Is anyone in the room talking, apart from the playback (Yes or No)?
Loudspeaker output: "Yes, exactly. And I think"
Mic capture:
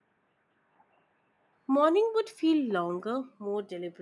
Yes